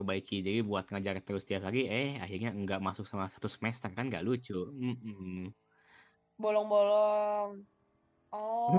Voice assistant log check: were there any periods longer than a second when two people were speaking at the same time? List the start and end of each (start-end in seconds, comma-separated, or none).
none